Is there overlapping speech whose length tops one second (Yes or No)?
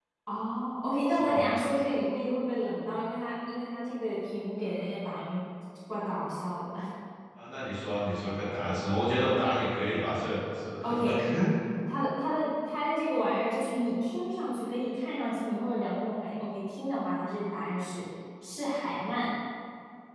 No